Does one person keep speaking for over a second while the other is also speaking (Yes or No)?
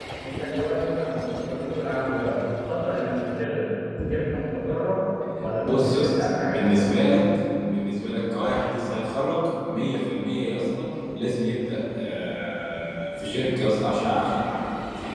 Yes